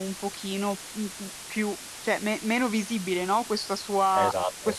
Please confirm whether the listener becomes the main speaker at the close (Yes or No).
No